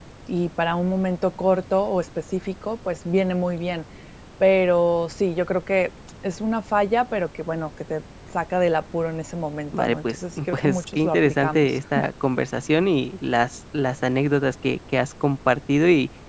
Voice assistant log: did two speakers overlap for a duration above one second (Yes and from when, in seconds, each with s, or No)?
Yes, from 9.7 s